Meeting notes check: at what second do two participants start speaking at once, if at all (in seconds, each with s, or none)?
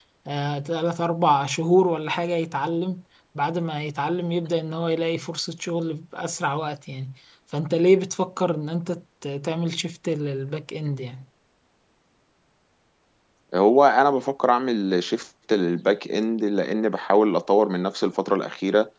none